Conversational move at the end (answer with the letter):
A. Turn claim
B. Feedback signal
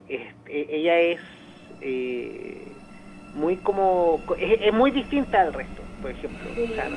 B